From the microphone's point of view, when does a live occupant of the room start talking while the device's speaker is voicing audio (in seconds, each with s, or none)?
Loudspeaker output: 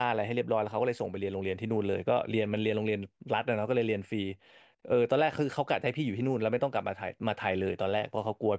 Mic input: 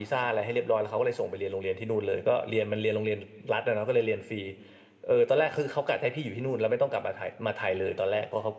none